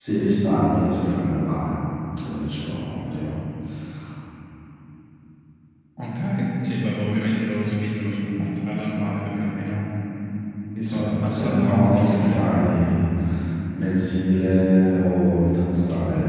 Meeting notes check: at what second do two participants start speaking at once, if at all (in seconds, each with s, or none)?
10.8 s